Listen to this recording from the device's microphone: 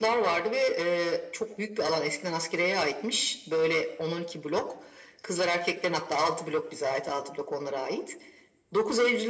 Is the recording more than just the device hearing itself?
No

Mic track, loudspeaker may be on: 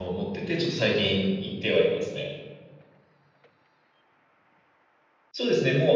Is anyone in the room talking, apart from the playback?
Yes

